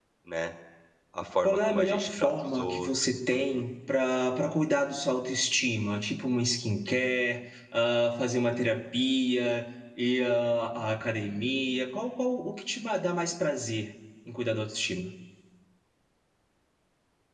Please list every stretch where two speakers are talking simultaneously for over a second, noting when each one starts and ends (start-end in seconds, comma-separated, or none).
1.4-3.6